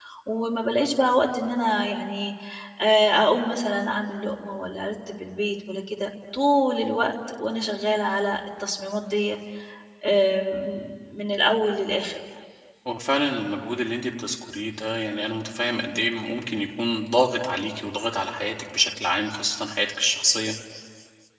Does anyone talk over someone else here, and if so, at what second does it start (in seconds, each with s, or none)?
none